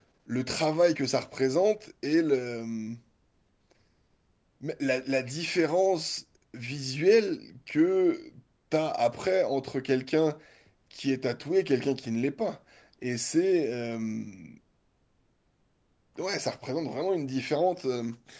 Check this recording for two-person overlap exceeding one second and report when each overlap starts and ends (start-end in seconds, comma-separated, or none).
none